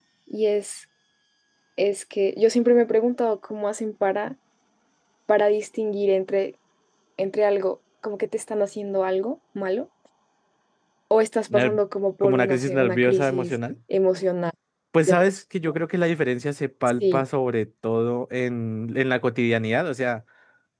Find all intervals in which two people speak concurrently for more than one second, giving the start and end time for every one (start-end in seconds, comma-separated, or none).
12.2-13.5